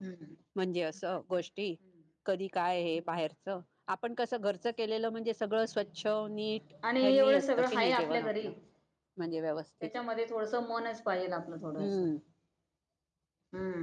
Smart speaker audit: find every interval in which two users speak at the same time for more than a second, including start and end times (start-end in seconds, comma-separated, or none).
7.0-8.3